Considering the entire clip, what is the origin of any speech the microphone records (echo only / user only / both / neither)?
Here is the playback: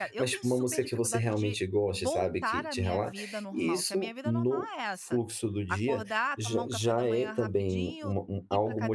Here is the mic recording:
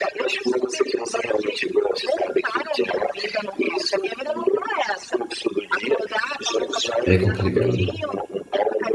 both